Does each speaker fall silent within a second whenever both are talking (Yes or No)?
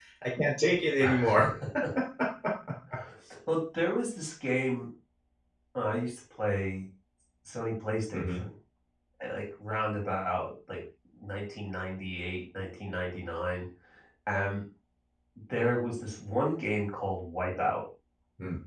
Yes